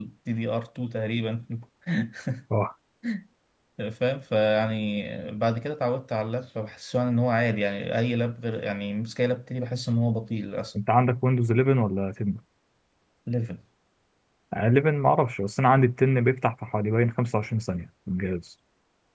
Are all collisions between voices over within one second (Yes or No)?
Yes